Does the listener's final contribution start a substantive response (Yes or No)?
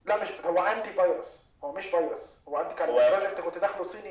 No